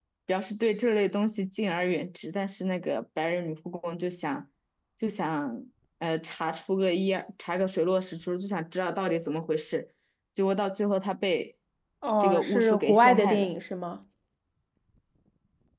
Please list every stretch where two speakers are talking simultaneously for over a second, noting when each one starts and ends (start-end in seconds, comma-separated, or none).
12.2-13.5